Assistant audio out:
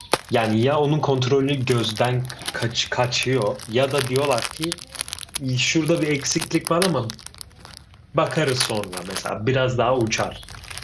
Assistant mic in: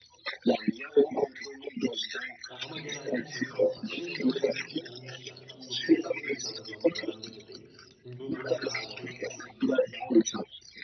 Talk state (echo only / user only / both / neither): both